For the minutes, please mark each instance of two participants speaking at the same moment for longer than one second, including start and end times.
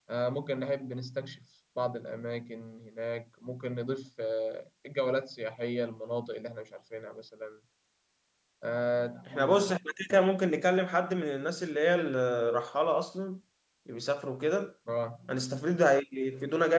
none

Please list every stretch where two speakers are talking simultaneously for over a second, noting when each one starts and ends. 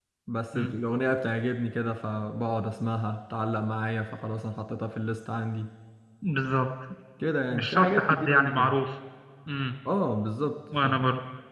7.5-8.8

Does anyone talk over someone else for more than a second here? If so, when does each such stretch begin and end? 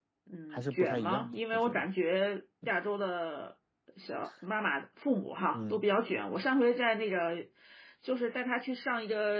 0.5-1.9

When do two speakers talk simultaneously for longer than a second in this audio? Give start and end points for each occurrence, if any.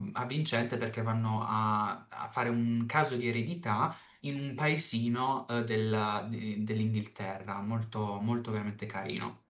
none

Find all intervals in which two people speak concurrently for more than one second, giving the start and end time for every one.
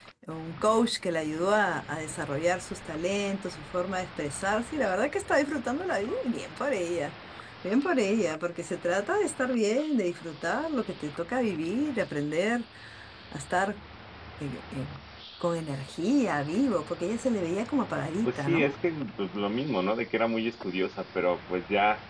none

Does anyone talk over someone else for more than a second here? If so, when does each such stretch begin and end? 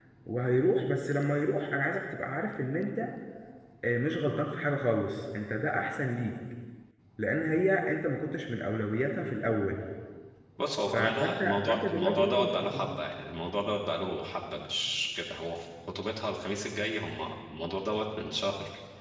10.9-13.0

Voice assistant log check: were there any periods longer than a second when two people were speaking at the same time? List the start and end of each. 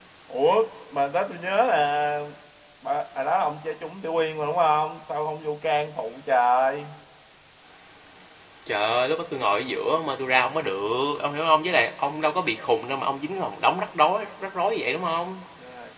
none

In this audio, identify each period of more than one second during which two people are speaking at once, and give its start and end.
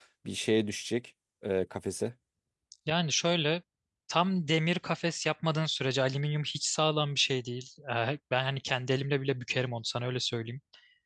none

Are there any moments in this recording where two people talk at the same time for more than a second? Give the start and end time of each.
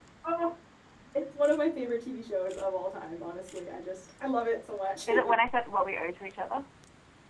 none

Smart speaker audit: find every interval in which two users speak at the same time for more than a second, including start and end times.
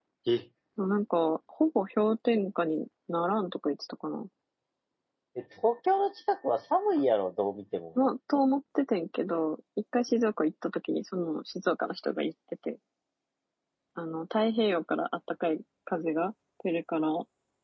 none

